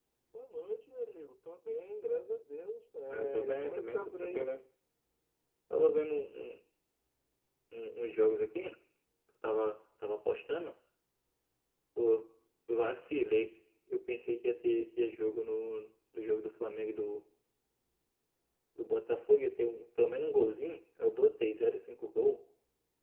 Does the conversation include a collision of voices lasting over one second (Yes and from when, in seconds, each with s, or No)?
Yes, from 3.1 s